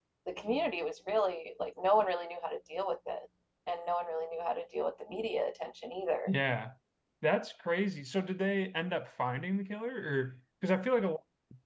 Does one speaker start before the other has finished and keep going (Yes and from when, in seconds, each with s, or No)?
No